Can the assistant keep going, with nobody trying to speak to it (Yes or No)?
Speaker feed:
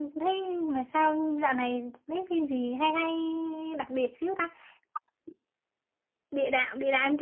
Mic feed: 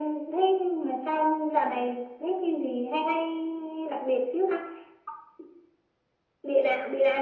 Yes